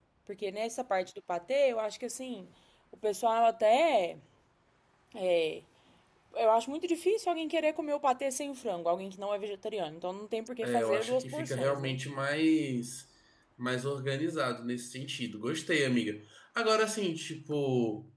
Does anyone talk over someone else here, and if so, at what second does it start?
10.6 s

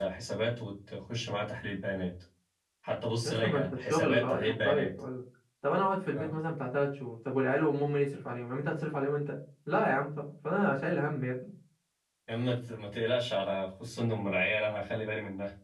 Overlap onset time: 3.2 s

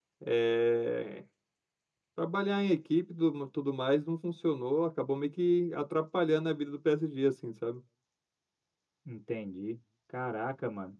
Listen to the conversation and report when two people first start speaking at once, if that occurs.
none

